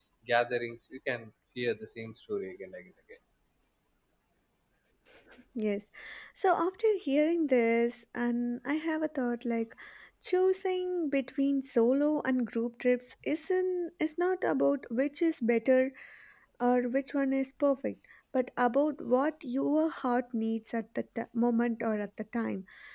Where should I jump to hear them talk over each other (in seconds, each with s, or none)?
none